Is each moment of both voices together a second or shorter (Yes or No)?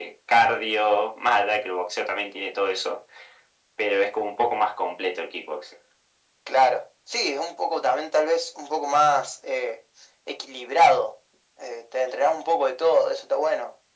Yes